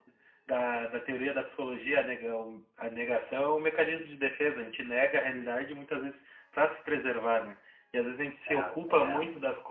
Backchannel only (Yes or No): Yes